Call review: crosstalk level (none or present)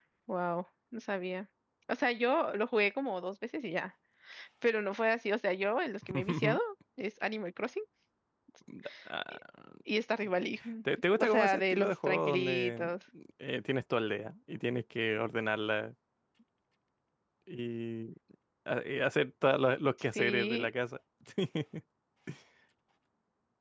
present